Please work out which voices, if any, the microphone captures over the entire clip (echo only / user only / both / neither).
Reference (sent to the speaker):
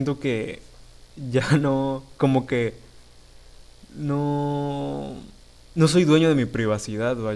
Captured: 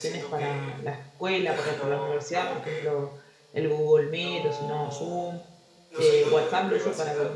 both